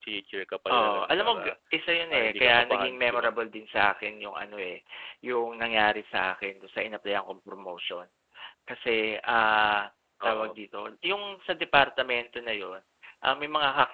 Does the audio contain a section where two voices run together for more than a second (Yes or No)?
Yes